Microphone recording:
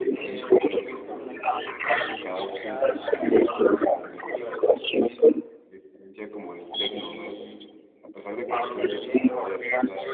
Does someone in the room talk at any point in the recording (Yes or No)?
Yes